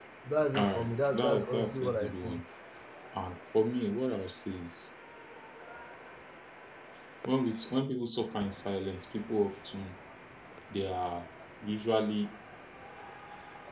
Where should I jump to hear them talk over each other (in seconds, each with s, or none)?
0.6 s